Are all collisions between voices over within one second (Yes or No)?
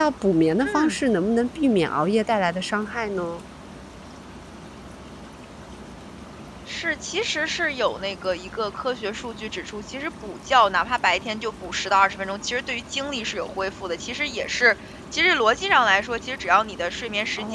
Yes